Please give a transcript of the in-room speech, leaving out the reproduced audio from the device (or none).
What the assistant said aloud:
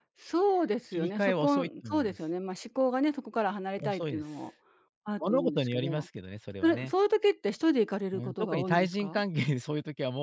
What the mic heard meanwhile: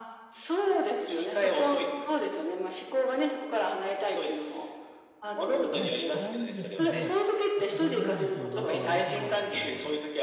まあ、辛いんですけど、仕方がないですよね、それ相手のあることだから。